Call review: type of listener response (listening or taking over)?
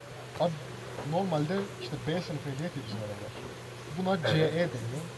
listening